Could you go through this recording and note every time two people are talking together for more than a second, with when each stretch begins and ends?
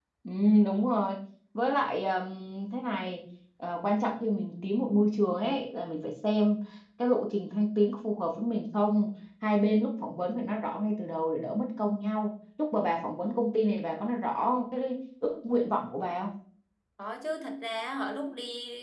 none

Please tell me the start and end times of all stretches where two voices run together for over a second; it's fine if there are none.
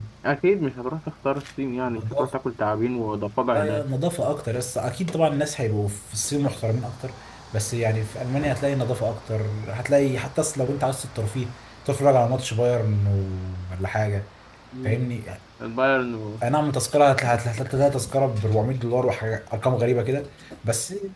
none

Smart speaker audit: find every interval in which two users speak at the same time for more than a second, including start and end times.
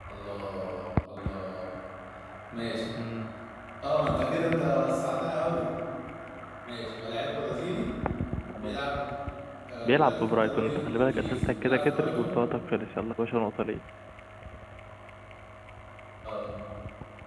9.8-12.3

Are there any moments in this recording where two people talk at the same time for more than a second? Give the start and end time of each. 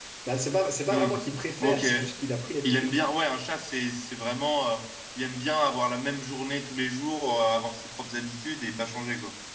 none

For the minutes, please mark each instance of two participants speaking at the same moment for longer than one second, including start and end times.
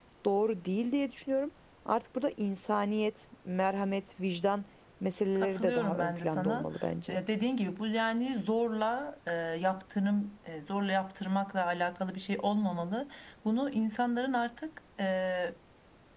5.4-6.7

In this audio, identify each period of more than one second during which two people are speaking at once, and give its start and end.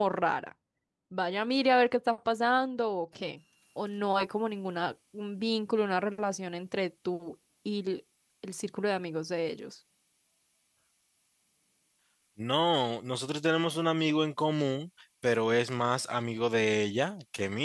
none

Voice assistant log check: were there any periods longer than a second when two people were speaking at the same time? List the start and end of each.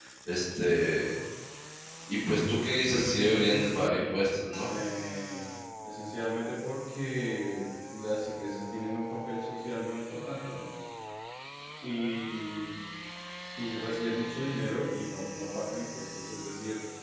2.9-4.2

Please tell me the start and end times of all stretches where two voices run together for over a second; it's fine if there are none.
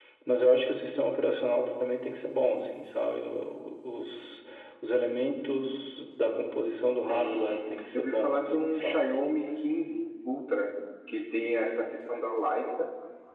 7.1-9.1

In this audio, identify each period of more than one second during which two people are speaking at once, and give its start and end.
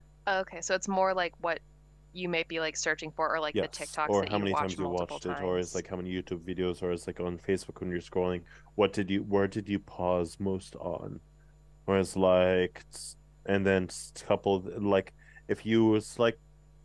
3.7-5.8

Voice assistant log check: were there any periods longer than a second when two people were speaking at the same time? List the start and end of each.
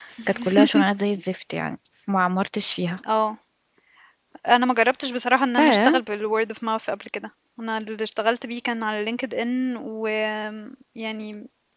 none

